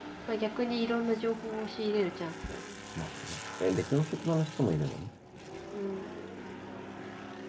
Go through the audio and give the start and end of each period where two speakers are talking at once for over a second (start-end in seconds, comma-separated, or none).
none